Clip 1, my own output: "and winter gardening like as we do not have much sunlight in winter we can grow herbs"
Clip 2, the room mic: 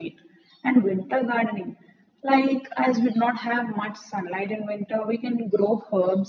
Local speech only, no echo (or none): none